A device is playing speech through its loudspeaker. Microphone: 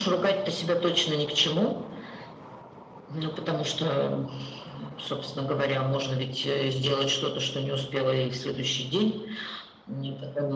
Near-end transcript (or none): none